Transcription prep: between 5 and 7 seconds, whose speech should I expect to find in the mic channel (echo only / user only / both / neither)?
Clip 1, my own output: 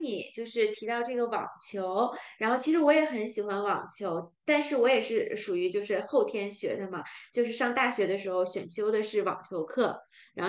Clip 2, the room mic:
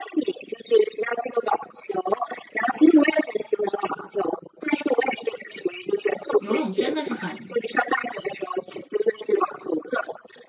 both